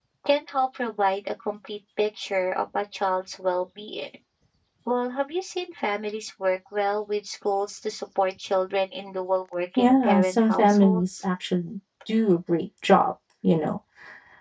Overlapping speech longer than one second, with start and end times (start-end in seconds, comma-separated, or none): 9.8-11.2